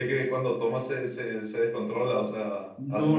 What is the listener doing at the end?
taking over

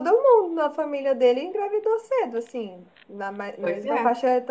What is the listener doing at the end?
listening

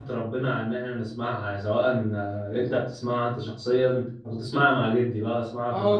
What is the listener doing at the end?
taking over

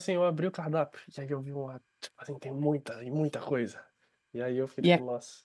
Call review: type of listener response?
listening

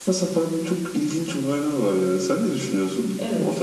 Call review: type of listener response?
taking over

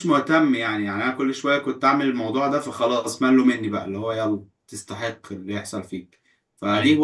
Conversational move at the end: listening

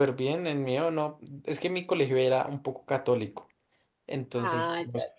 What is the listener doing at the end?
listening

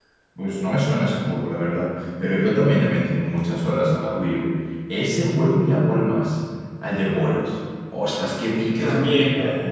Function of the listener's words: listening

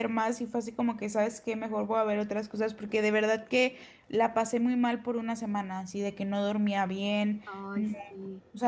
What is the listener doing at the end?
listening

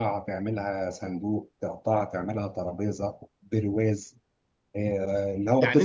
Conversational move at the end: taking over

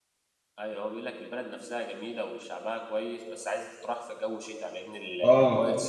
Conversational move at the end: taking over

